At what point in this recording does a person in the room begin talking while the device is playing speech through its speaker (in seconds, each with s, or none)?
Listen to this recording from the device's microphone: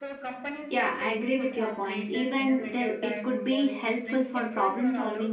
0.7 s